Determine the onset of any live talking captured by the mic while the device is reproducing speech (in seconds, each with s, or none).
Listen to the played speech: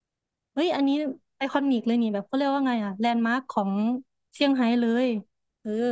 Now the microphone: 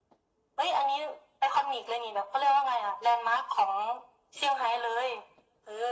none